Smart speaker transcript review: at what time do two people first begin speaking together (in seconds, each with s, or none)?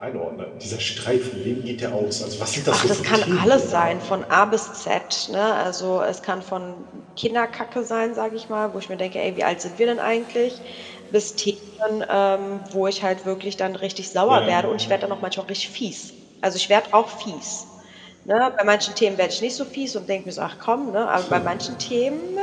2.7 s